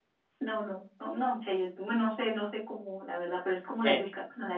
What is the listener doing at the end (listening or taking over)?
listening